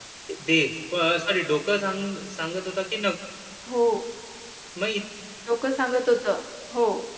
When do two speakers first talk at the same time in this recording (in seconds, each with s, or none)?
none